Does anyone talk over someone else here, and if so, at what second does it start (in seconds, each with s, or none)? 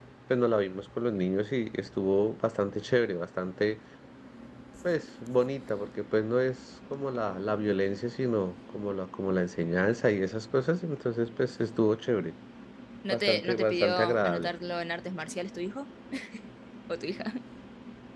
13.1 s